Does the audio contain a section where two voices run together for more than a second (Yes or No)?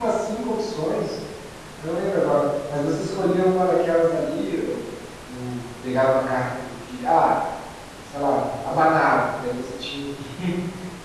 No